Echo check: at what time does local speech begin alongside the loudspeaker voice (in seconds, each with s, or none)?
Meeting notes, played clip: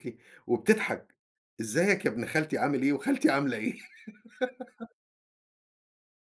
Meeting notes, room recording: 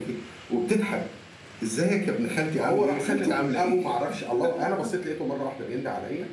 2.5 s